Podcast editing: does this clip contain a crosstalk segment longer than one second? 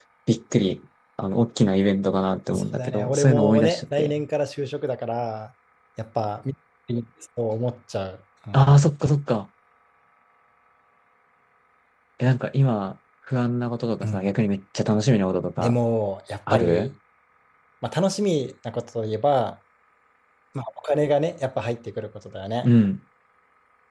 Yes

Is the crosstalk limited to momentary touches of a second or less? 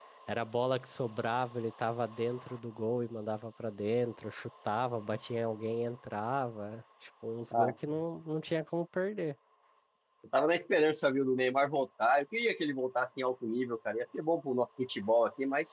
Yes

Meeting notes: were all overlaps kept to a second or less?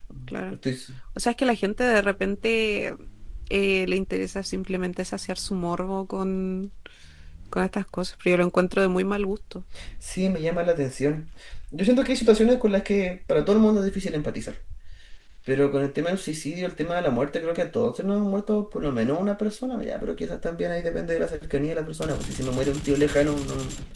Yes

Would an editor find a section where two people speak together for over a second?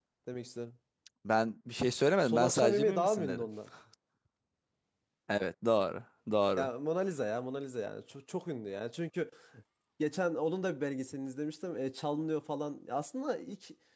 Yes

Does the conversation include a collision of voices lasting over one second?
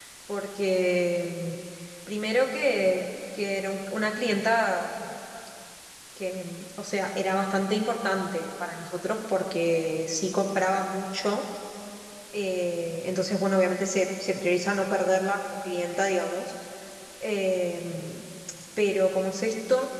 No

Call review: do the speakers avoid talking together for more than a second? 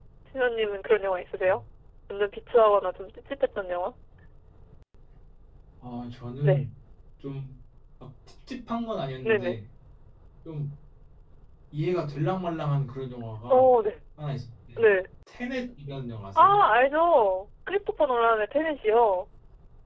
Yes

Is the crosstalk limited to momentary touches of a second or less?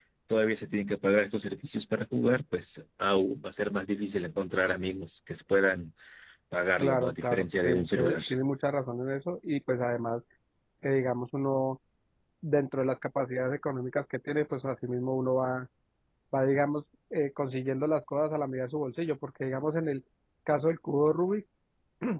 No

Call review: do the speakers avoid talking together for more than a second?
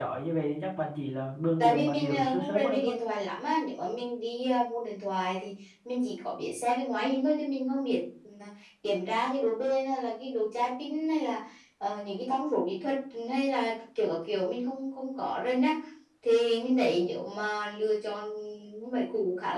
No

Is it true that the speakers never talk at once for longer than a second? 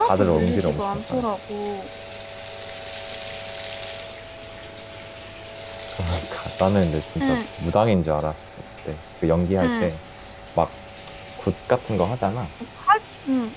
No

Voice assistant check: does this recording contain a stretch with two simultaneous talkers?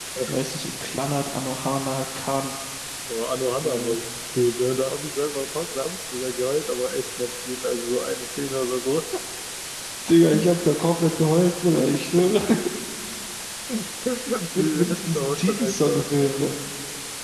Yes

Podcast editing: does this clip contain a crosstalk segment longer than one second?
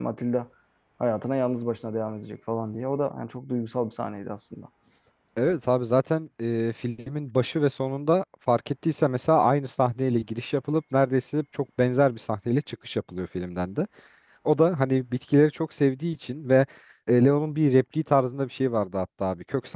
No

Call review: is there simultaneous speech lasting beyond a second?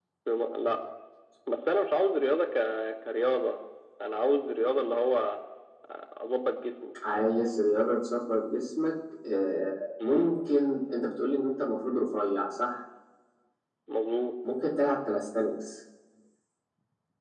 No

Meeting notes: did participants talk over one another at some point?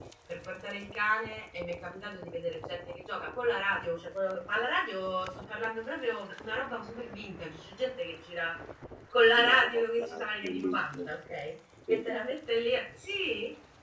Yes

